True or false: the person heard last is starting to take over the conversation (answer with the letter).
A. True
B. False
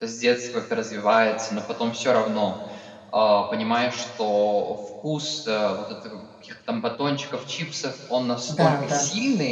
B